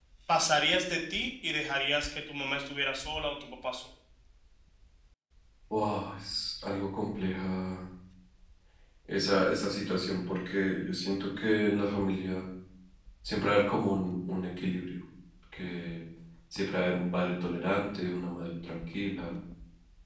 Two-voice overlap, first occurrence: none

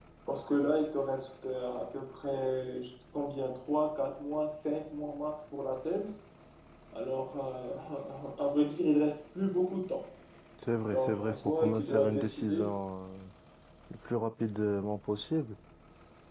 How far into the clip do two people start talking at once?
11 s

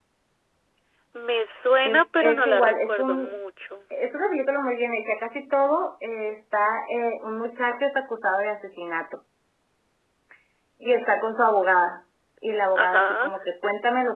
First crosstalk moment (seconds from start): 2 s

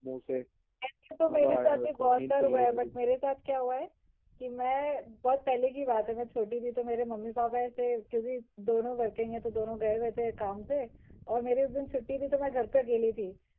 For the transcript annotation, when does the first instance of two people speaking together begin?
1 s

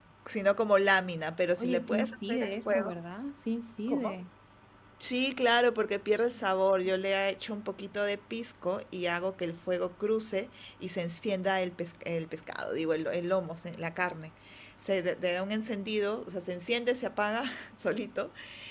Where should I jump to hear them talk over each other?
2 s

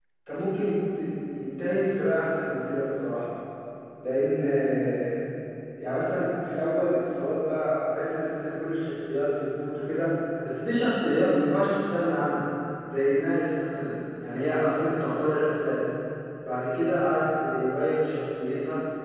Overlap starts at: none

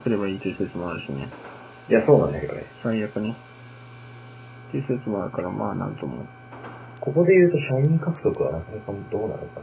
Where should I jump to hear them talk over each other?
none

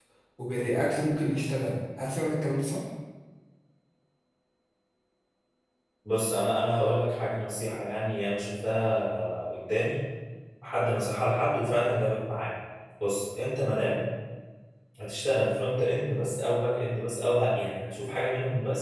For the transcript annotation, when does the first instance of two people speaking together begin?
none

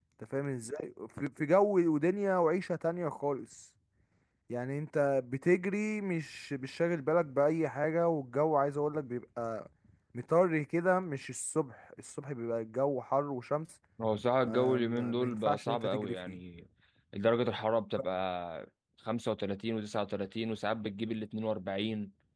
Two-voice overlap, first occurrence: 14 s

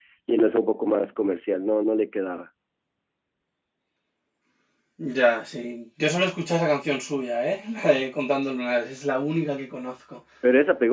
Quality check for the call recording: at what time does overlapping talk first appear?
none

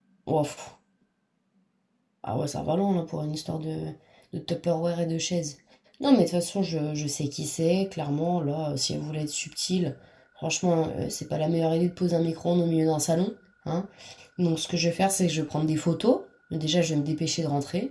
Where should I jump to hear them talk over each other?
none

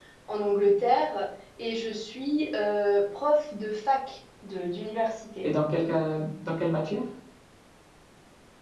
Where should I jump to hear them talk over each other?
none

